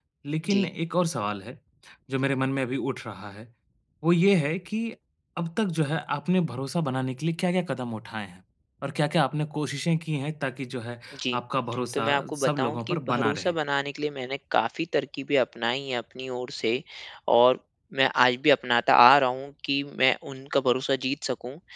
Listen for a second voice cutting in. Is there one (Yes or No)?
Yes